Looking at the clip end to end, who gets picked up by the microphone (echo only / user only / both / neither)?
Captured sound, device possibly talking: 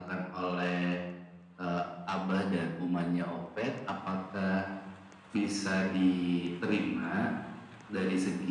echo only